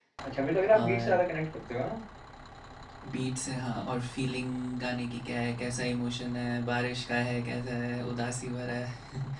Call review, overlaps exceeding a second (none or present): none